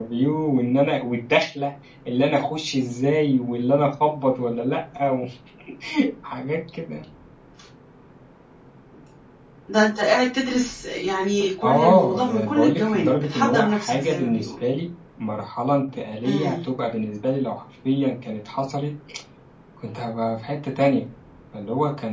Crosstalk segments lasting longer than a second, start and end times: 11.6-14.5

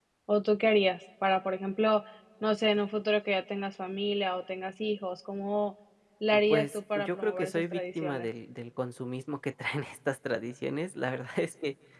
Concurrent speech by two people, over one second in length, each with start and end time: 6.3-8.3

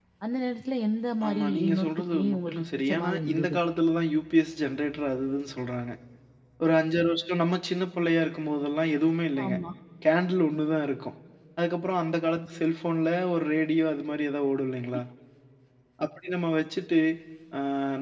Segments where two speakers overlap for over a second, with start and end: 1.3-3.5

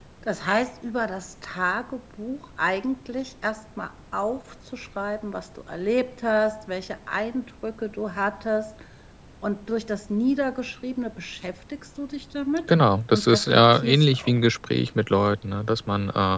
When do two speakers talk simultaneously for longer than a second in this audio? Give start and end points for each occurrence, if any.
13.1-14.4

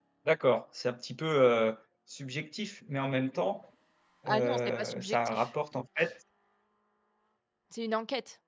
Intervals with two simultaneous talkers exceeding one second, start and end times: 4.3-5.5

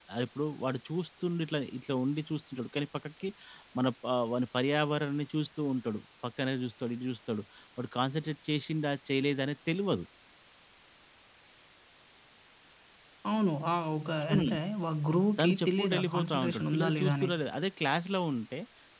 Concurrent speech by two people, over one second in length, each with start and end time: 15.4-17.4

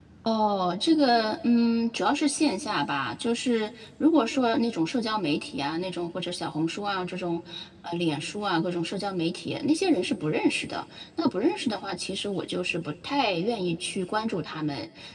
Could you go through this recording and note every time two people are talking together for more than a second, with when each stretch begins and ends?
none

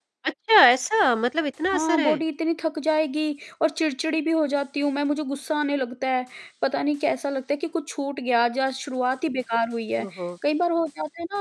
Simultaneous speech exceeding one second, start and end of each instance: none

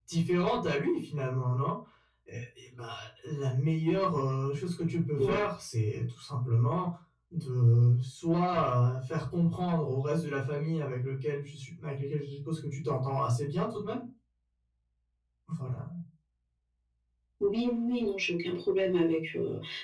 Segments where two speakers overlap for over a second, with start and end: none

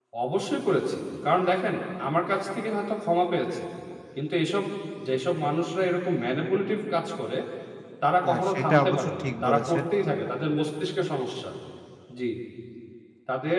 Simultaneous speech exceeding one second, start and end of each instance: 8.3-9.8

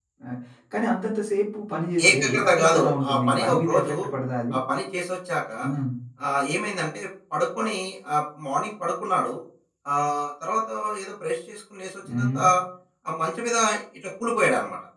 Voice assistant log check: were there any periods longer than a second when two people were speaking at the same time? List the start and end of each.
2.1-3.9

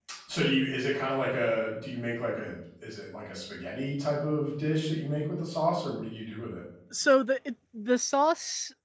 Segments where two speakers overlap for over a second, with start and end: none

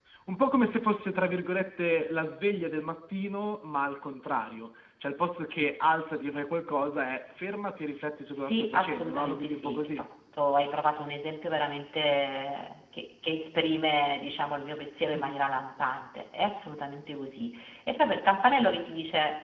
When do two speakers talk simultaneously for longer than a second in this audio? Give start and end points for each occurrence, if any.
8.3-10.0

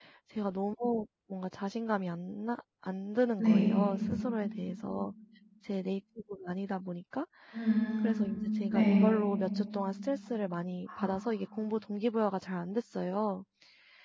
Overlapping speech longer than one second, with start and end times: none

